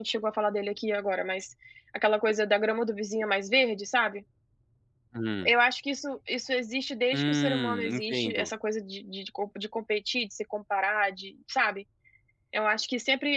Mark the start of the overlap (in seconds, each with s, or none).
7.1 s